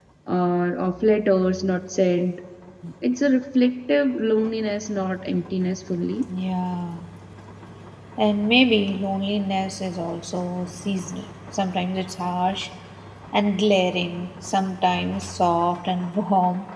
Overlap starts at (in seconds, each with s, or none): none